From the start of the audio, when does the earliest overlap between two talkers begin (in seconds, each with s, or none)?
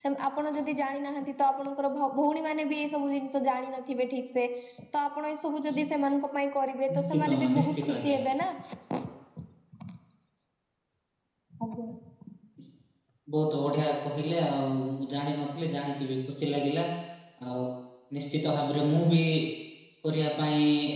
6.9 s